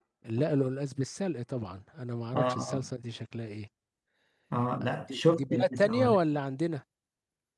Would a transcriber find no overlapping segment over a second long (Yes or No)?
No